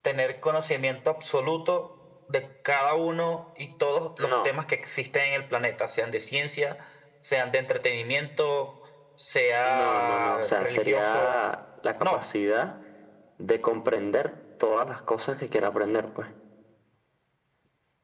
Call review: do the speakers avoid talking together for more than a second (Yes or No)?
No